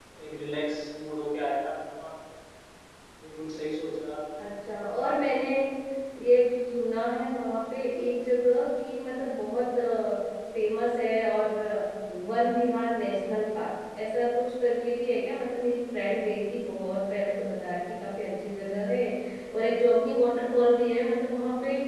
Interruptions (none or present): none